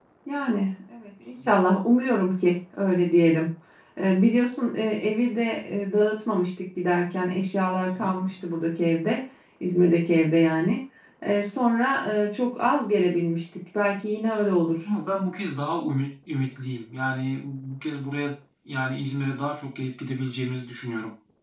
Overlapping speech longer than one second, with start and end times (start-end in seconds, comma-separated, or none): none